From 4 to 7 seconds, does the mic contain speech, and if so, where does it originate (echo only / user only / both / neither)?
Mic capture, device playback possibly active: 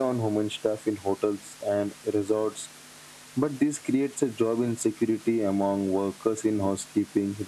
echo only